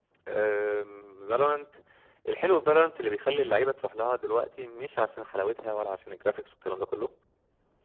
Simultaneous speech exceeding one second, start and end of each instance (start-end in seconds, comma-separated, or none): none